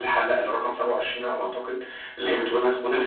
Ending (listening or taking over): listening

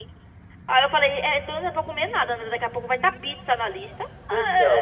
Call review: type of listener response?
taking over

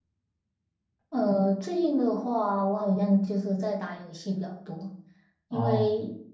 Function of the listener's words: listening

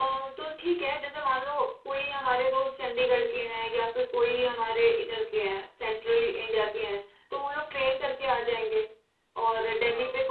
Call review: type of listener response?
listening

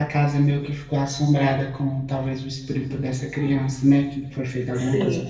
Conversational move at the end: taking over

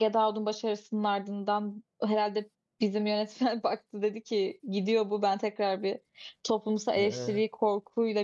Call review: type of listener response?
listening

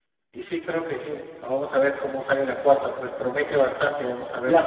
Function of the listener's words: taking over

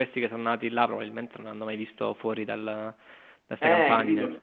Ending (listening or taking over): taking over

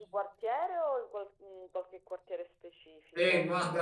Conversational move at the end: taking over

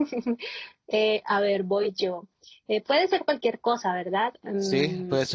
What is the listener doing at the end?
taking over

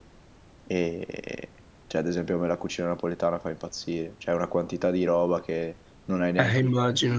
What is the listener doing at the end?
taking over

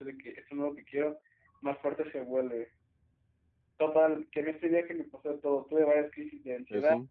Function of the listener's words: listening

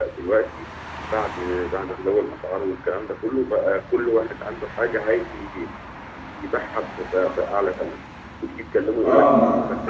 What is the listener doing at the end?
taking over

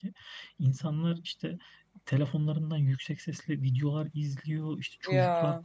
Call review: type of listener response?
listening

